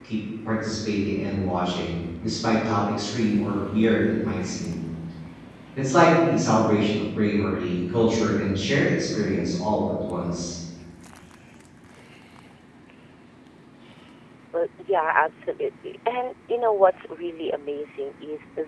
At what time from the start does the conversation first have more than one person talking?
none

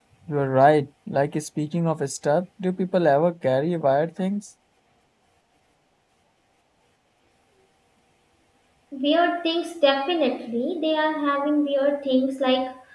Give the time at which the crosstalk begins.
none

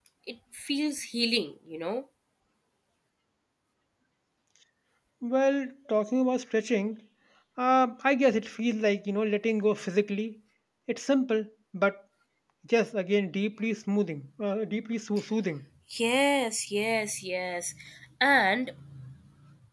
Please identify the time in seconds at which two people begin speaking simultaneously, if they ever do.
none

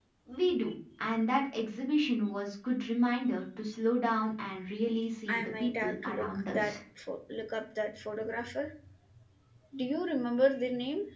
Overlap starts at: 5.3 s

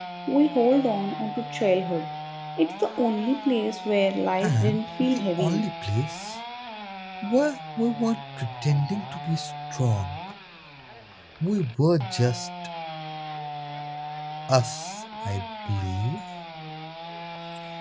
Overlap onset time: 4.4 s

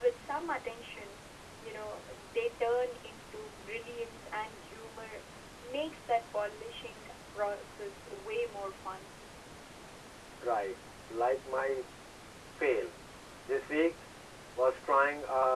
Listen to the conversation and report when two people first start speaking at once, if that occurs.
none

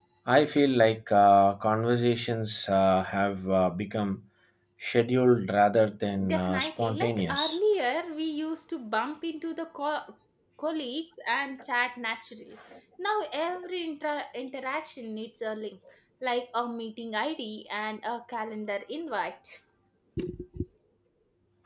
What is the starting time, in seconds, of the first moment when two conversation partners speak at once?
6.1 s

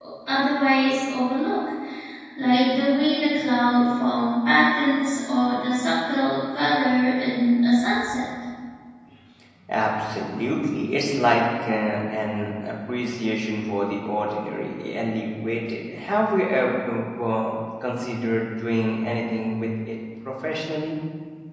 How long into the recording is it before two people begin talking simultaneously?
none

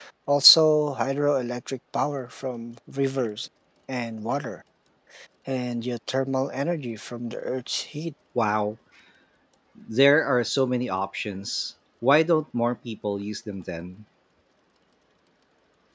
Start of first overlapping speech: none

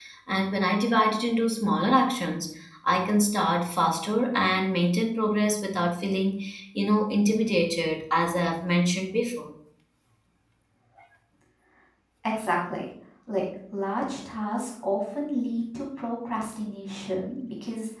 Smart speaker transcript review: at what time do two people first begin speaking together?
none

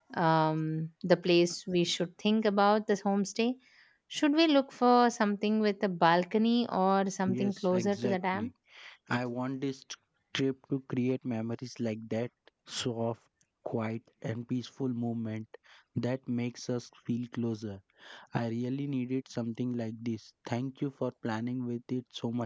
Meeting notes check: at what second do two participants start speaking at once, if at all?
7.3 s

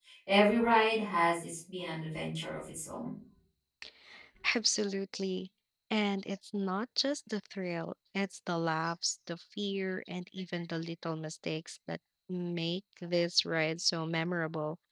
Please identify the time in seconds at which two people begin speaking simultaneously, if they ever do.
none

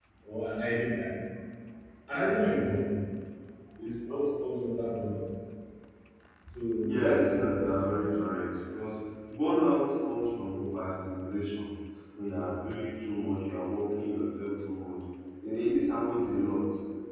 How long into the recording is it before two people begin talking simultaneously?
6.8 s

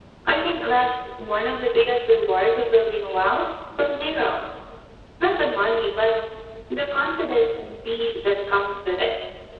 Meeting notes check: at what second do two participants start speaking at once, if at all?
none

